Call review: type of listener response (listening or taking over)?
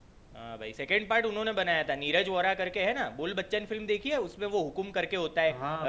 taking over